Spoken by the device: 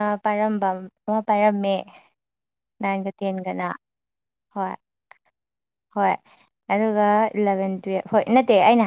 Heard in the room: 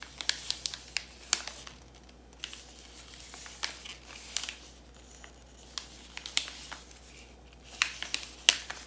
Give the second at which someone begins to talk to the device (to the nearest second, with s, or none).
none